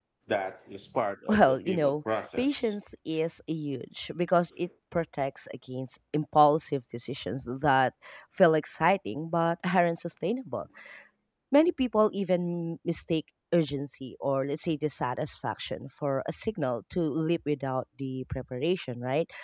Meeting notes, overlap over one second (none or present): present